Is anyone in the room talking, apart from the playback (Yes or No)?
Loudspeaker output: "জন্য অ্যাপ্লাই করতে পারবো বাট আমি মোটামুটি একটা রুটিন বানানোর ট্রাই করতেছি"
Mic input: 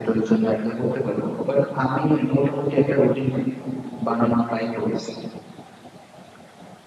No